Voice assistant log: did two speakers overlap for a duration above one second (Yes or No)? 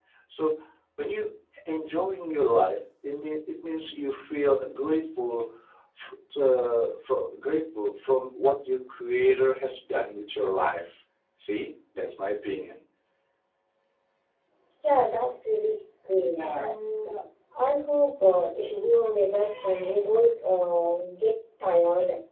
No